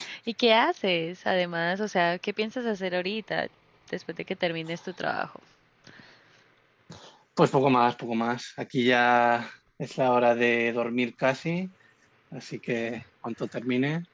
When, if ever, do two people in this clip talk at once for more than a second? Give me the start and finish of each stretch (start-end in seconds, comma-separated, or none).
none